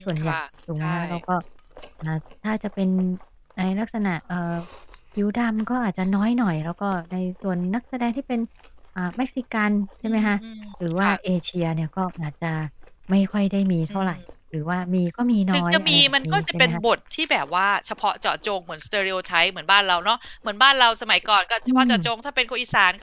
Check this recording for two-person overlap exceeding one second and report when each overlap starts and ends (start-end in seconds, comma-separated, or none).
15.5-16.8